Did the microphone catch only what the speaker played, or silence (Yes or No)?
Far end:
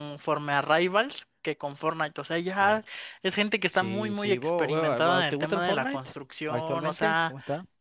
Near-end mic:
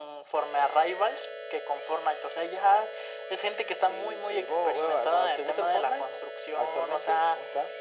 Yes